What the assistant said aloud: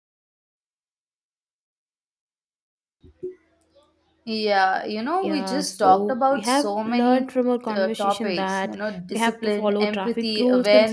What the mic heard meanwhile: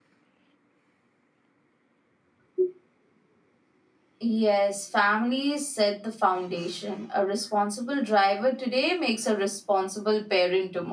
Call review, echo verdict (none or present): none